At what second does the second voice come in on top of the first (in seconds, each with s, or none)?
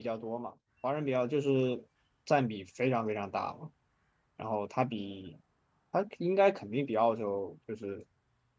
none